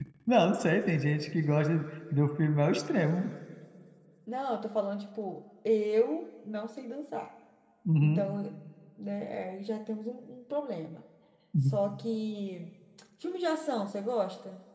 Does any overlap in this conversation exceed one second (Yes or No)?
No